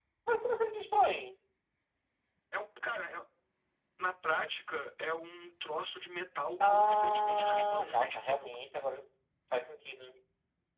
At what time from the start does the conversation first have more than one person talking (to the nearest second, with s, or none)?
7 s